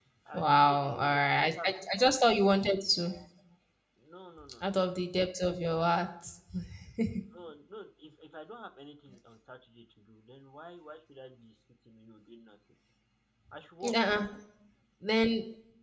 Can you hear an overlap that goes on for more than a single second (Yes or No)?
Yes